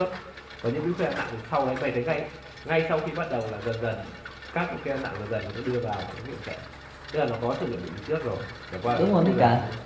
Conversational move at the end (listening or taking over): taking over